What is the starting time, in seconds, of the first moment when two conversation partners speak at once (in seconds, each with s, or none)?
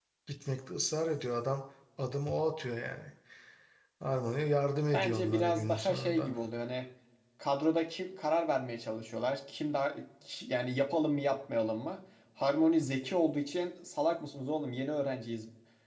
4.9 s